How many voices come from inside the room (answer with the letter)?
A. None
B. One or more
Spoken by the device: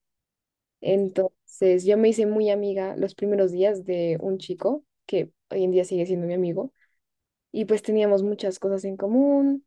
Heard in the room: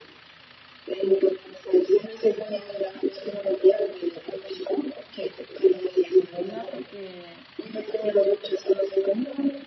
B